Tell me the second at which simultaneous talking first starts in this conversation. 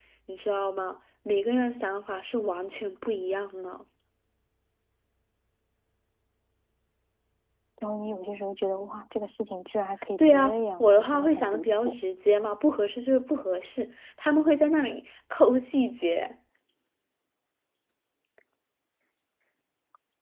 10.2 s

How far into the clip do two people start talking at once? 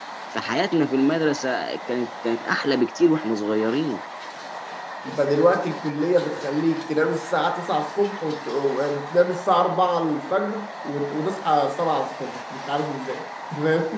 none

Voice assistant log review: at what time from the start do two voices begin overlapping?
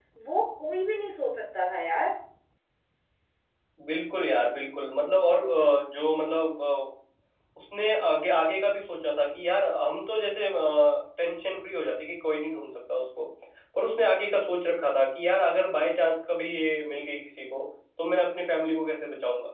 none

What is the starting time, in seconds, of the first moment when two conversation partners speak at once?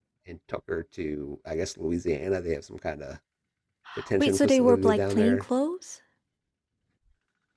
4.2 s

